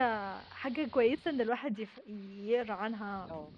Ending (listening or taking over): listening